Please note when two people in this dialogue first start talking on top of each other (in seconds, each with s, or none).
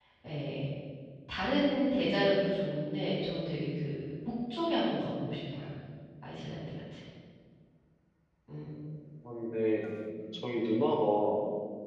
none